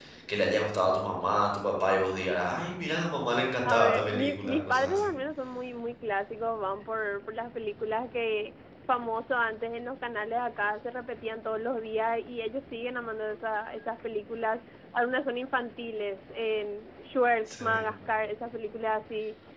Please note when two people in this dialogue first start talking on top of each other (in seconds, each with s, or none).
3.6 s